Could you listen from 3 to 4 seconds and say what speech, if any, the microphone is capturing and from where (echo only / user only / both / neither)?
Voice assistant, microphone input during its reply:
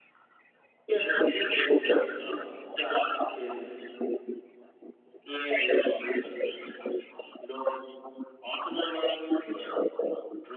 echo only